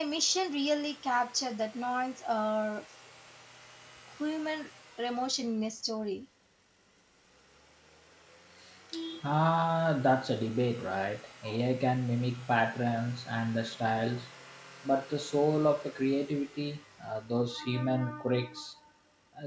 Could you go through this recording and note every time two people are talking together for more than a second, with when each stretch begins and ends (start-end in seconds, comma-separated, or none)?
none